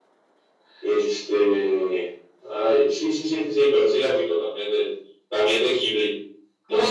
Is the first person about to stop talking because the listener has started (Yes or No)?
No